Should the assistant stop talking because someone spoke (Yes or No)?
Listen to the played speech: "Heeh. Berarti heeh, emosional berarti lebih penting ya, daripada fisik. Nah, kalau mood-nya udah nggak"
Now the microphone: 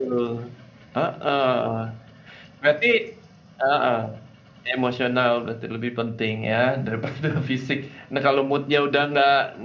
No